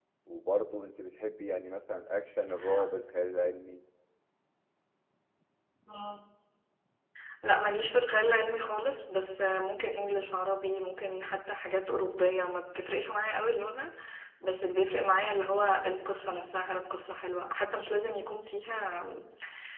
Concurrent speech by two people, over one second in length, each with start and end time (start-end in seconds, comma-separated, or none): none